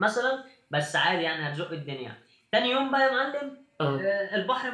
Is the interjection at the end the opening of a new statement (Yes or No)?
No